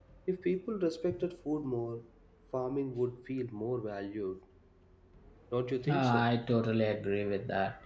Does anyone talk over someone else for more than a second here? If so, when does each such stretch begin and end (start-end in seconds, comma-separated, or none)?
none